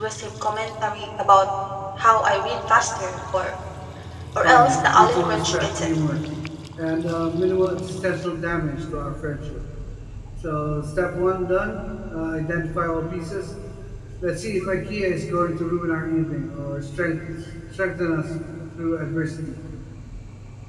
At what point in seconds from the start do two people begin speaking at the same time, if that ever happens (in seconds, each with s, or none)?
4.4 s